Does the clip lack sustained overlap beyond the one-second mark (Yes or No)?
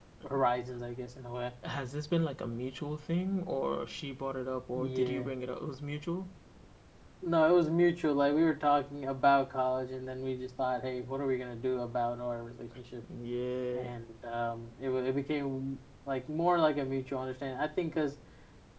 Yes